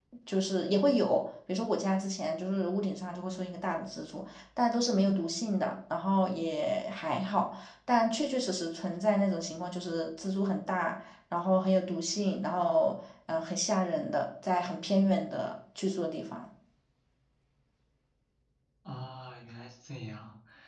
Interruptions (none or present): none